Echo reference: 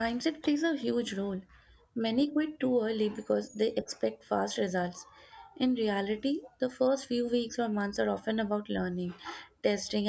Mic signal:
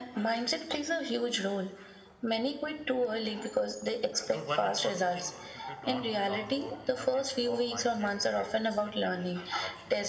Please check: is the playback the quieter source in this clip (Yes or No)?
No